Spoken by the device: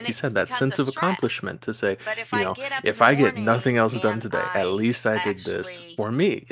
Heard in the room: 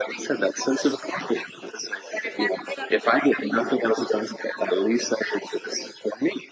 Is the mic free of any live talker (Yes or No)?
Yes